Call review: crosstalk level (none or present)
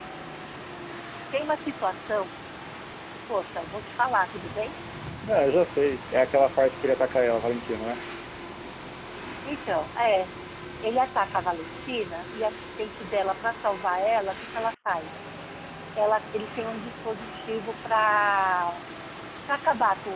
none